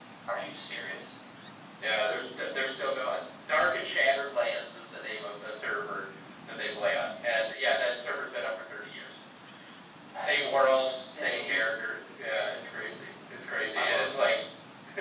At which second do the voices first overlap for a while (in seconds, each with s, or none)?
10.1 s